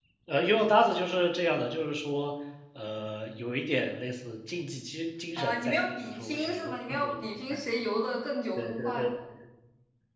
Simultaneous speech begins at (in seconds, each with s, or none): 5.4 s